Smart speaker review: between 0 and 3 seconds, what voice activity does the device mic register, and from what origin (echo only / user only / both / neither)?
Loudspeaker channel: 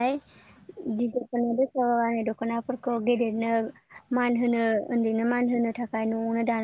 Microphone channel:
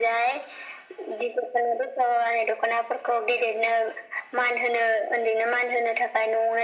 echo only